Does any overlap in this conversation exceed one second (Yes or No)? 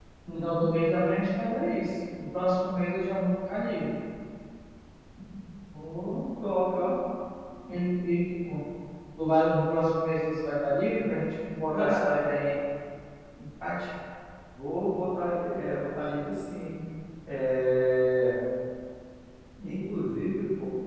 No